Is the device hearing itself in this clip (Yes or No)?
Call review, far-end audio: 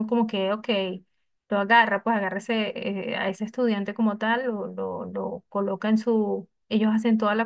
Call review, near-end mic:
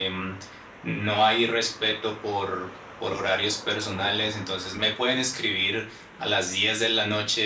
No